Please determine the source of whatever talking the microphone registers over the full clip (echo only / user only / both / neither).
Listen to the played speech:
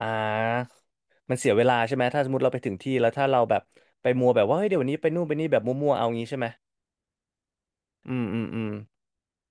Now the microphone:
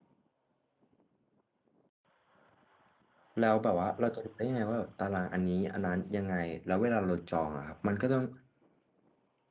user only